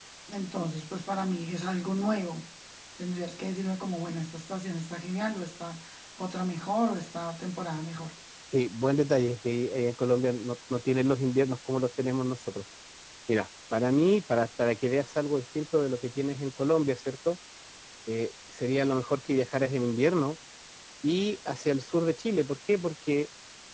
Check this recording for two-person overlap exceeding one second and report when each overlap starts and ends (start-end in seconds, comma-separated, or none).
none